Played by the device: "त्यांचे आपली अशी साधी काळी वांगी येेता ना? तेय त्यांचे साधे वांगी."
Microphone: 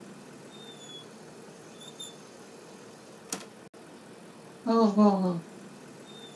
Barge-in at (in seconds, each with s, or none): 4.7 s